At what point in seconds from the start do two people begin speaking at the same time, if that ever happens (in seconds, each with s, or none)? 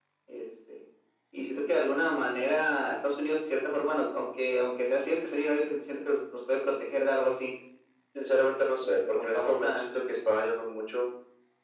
8.8 s